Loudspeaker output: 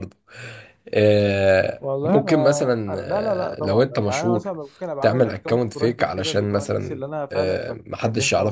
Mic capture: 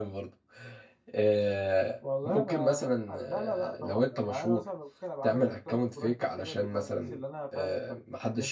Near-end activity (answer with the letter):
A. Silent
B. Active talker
A